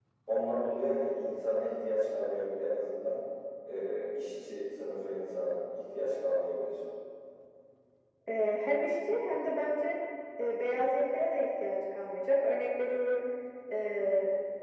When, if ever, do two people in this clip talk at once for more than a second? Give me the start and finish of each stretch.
none

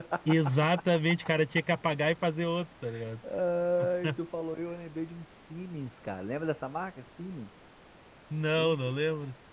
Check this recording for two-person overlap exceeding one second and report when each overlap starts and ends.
none

